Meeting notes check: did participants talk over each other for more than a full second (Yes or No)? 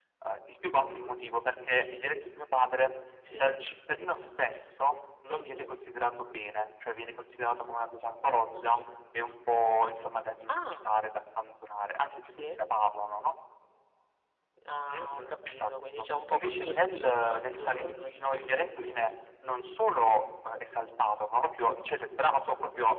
Yes